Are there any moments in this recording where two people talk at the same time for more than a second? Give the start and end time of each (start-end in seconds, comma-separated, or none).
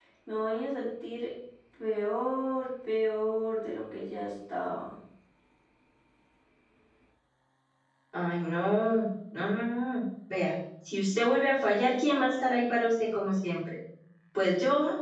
none